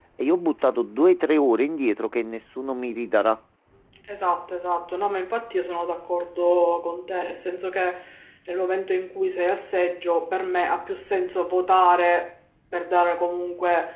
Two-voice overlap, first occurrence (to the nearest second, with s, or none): none